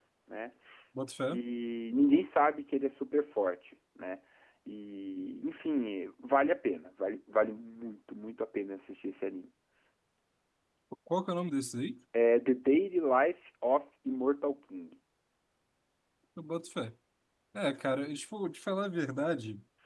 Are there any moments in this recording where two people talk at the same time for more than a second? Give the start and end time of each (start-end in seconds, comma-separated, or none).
none